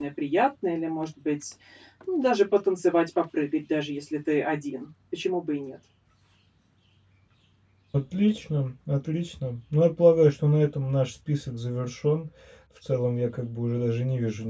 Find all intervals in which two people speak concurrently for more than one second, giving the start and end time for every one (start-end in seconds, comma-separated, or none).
none